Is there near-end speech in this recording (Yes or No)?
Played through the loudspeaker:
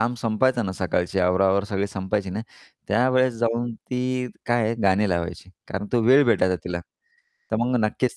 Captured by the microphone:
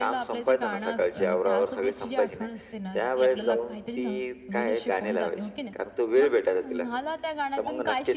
Yes